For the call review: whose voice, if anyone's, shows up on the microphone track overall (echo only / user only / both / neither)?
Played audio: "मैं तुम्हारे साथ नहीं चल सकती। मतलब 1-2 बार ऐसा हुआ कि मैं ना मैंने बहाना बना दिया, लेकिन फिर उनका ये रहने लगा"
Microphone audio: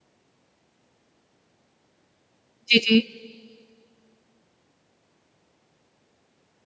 user only